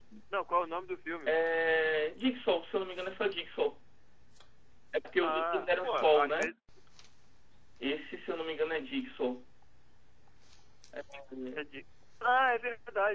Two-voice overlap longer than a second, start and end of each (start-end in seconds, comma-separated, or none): 5.2-6.5